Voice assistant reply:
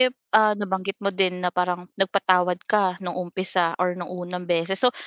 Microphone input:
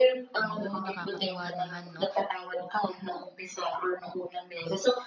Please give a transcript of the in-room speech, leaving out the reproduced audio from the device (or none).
Oh, nakakatuwa naman 'no.